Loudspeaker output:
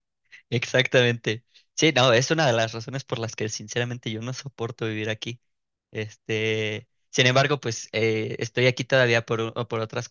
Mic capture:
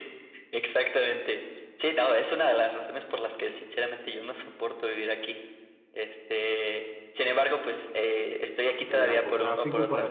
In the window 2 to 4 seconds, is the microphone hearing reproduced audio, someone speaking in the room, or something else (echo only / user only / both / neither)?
echo only